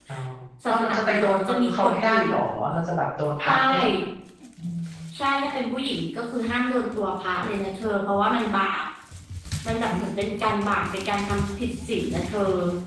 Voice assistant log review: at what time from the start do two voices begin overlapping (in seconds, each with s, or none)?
0.7 s